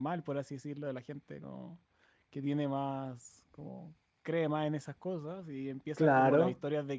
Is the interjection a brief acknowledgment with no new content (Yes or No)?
Yes